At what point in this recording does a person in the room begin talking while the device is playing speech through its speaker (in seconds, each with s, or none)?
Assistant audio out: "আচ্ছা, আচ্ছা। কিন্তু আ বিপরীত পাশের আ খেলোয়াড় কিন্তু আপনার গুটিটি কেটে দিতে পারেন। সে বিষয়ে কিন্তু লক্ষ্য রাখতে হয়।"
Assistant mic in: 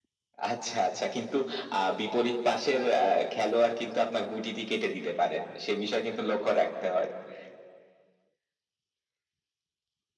none